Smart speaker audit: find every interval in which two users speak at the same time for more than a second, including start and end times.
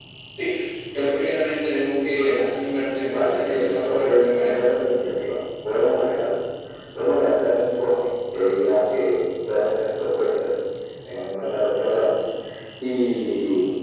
3.1-4.7

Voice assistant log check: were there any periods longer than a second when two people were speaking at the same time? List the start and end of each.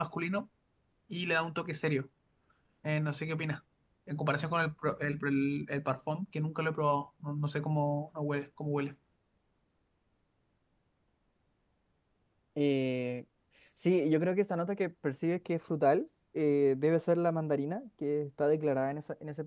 none

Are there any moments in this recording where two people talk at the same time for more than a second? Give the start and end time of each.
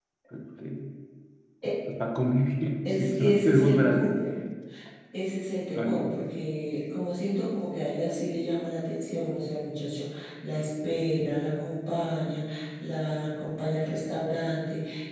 3.0-4.2

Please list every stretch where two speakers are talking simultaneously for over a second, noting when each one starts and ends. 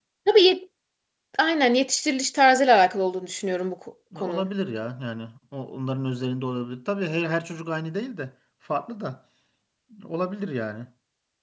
none

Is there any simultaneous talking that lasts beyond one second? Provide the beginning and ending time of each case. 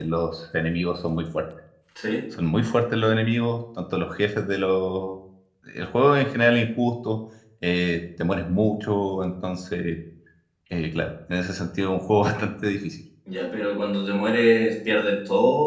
none

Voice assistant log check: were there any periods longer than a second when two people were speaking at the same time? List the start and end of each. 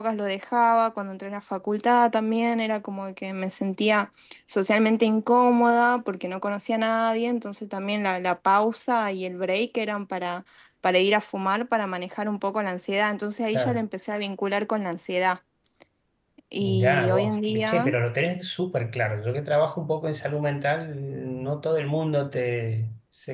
16.6-17.9

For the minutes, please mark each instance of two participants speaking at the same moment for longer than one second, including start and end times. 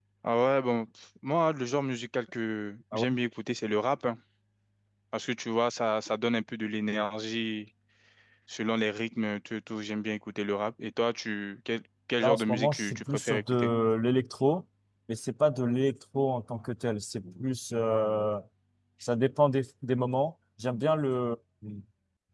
12.2-13.7

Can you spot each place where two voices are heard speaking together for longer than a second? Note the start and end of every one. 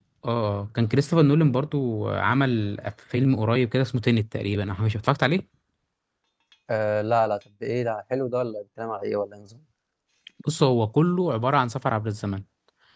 none

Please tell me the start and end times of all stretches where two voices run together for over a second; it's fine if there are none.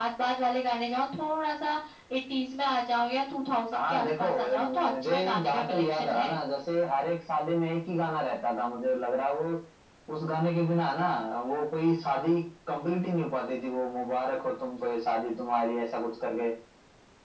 3.7-6.4

